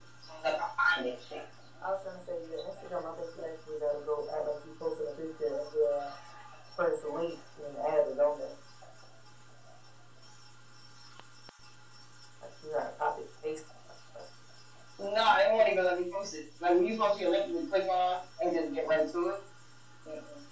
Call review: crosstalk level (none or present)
none